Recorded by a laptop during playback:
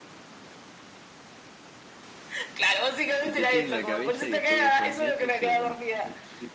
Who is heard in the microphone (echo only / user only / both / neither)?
both